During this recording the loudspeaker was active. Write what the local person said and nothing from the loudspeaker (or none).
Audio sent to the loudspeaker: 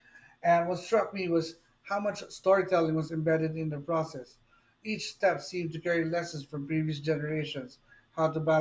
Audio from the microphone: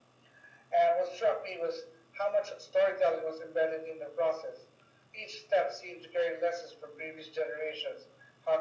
none